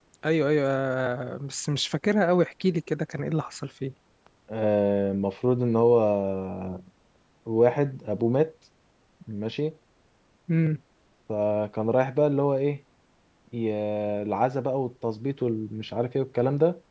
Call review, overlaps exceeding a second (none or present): none